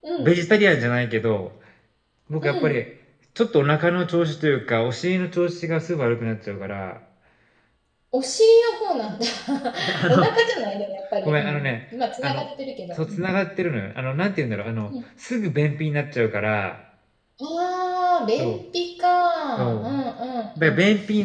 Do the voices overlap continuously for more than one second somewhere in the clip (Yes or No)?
No